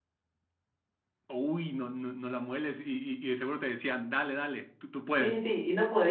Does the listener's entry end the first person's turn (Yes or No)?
Yes